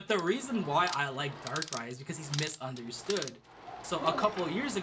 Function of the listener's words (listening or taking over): listening